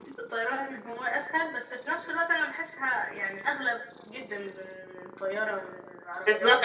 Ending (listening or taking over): taking over